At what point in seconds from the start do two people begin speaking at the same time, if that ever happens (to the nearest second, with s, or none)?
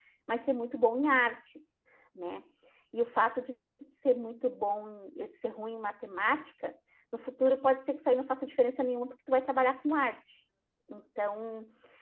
none